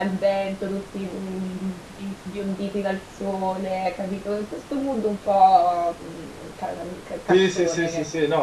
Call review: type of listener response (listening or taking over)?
taking over